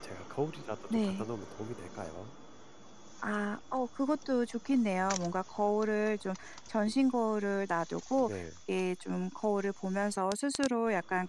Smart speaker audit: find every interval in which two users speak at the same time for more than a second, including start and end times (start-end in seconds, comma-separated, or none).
none